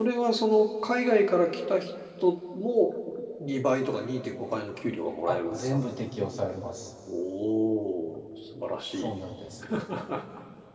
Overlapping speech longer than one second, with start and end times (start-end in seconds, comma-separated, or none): none